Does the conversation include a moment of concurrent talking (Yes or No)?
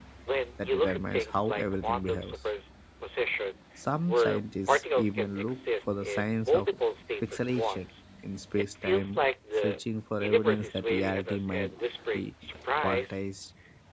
Yes